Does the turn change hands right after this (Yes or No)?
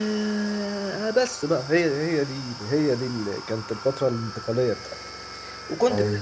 No